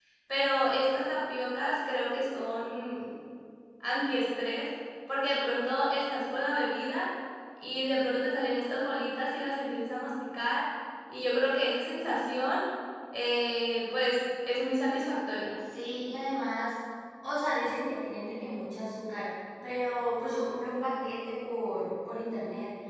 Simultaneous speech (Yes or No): No